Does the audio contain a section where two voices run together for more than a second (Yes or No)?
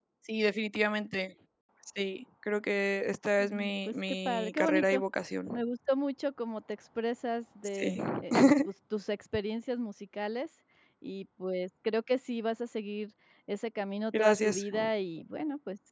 Yes